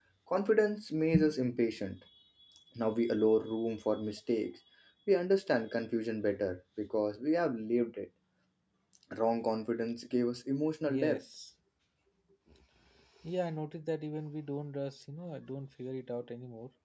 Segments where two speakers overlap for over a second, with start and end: none

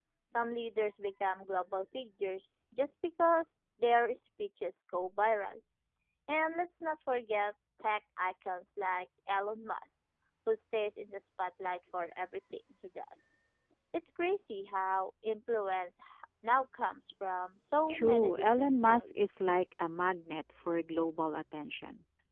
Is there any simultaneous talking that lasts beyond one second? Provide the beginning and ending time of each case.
17.9-19.4

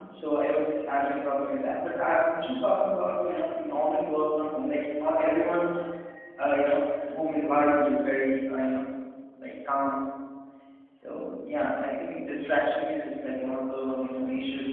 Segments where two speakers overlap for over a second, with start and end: none

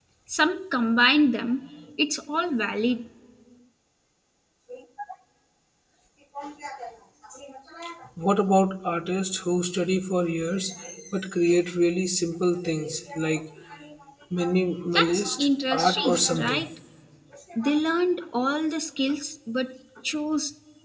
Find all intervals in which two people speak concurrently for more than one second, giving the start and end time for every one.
14.9-16.6

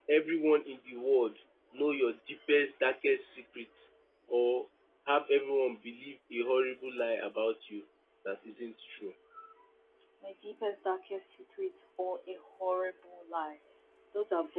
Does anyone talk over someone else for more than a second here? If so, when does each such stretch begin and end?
none

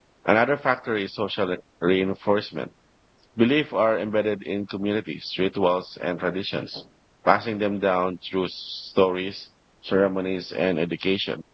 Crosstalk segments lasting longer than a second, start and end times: none

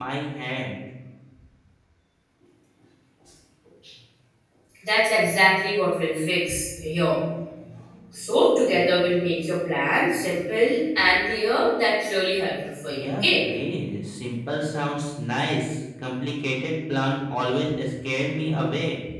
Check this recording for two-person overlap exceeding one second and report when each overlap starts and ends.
none

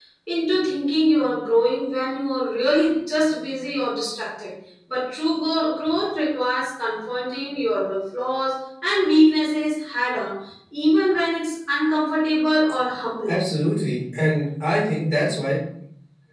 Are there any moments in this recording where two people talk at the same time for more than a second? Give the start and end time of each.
none

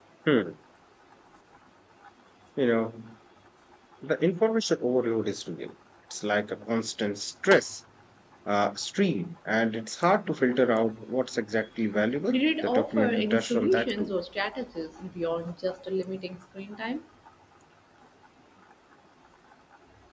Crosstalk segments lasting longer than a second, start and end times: 12.3-14.1

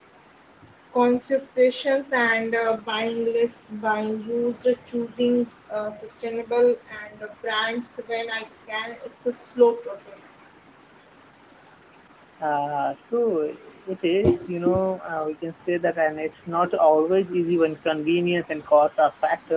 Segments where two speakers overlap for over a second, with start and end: none

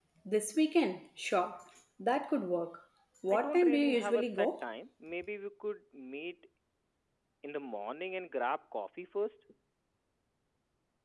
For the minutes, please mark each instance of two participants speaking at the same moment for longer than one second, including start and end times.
3.3-4.6

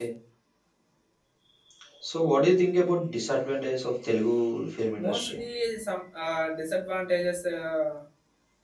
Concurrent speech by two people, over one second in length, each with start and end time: none

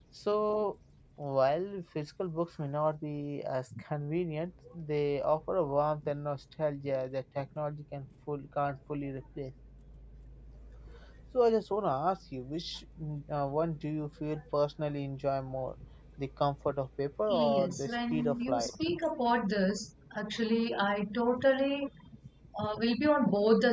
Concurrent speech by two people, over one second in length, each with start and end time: 17.3-18.7

